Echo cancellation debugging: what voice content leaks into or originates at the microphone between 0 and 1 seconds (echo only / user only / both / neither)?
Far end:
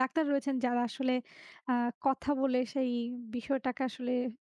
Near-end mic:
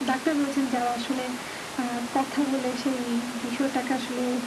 echo only